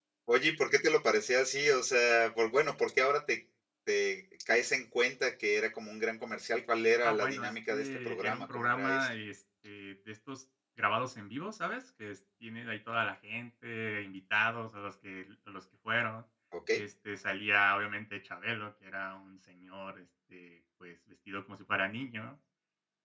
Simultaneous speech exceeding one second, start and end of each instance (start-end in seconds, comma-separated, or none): 7.0-9.1